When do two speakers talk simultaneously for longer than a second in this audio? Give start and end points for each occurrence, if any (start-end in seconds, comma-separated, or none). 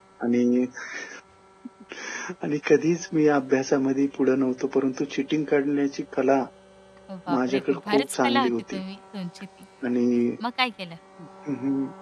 7.3-8.8